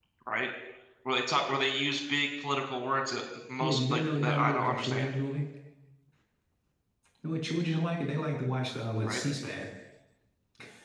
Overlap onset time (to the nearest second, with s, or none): 4 s